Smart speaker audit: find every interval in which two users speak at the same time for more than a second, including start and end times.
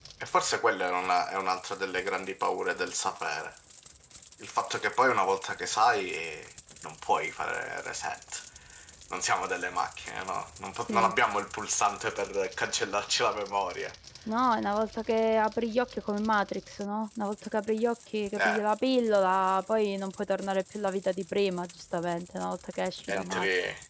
none

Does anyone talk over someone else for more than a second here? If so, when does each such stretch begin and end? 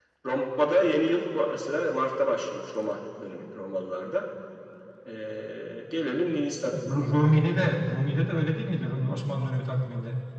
none

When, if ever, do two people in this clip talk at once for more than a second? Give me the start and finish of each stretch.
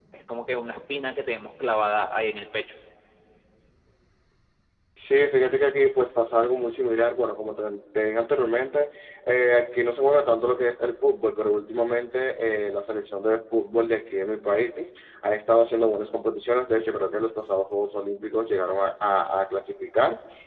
none

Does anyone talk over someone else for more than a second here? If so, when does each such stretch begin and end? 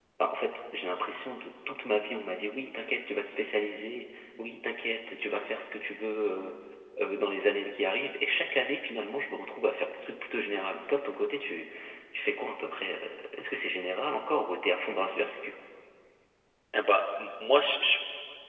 none

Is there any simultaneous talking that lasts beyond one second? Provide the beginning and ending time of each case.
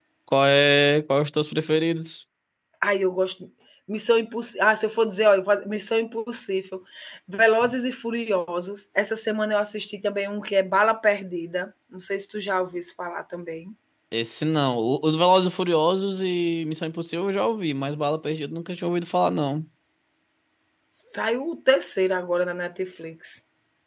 none

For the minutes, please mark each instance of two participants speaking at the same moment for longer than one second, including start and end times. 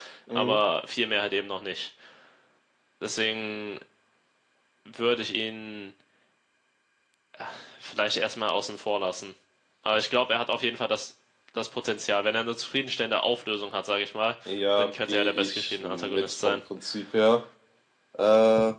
14.8-16.6

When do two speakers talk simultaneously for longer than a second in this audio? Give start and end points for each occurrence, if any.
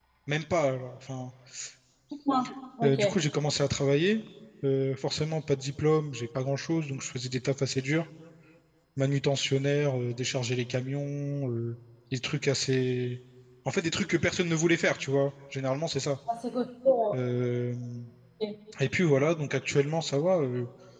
none

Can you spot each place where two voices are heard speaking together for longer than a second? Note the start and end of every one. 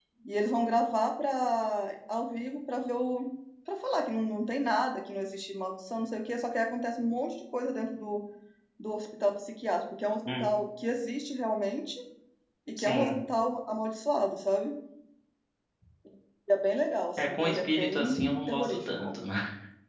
17.2-19.1

